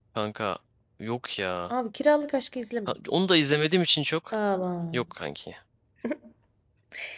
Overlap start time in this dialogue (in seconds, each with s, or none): none